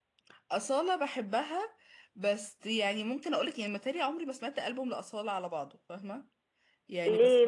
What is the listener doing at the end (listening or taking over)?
taking over